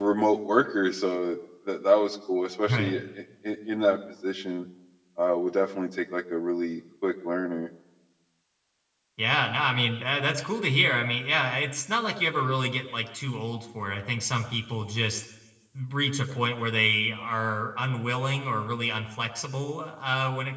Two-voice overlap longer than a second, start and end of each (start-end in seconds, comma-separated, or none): none